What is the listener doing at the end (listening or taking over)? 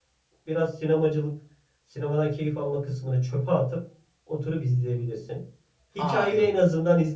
listening